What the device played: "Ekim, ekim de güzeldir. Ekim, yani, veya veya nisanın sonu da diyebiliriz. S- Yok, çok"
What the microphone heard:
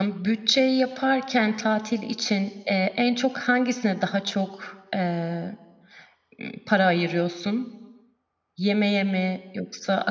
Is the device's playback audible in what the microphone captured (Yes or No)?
No